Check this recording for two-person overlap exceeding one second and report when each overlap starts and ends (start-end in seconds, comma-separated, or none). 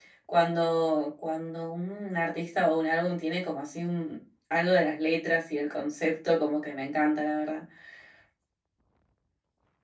none